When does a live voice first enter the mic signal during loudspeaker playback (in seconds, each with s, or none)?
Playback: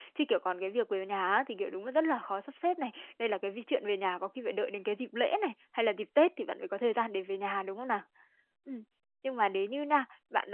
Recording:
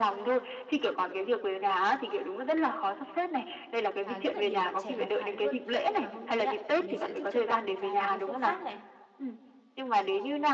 4.0 s